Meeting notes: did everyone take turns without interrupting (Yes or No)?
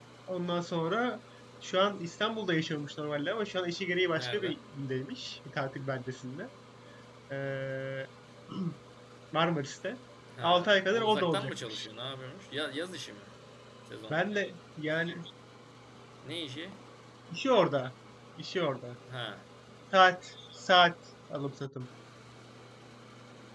No